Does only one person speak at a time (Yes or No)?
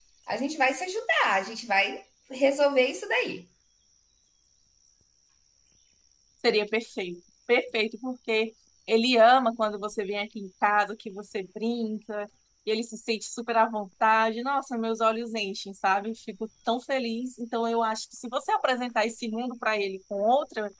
Yes